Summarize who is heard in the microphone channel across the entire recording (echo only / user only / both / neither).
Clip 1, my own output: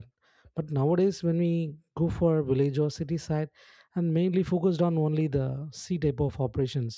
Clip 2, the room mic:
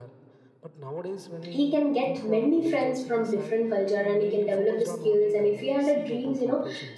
both